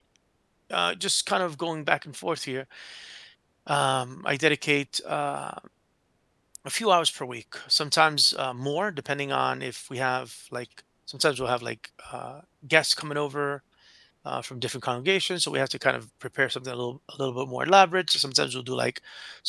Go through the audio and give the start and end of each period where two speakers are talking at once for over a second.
none

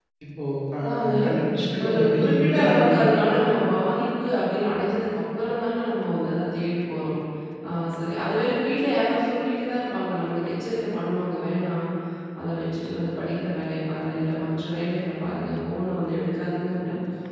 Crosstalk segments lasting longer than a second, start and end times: 1.8-3.0

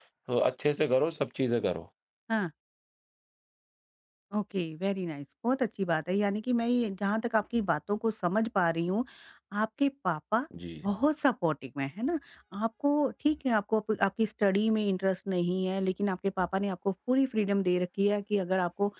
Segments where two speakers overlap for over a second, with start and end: none

